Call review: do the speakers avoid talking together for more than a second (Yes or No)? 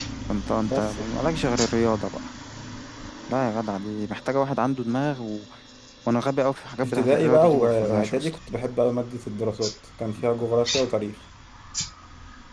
No